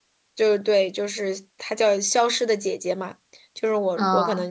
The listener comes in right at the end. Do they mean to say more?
No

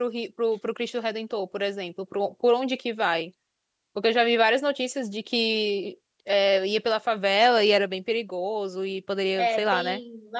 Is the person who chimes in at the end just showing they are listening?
No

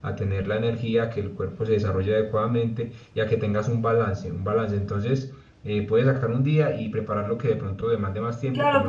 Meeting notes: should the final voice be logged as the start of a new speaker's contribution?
Yes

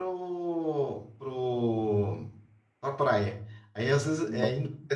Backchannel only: Yes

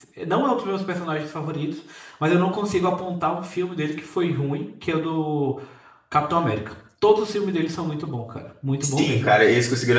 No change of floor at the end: No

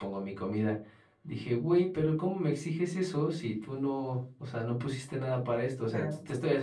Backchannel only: Yes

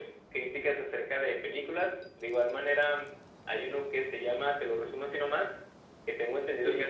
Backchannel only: Yes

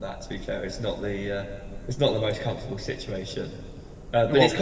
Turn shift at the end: No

